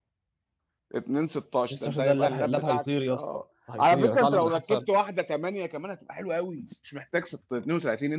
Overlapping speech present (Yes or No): Yes